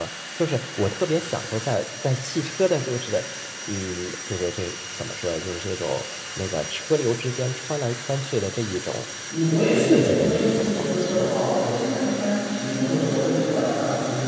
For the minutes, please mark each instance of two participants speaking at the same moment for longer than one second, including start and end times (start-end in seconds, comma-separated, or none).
9.7-11.3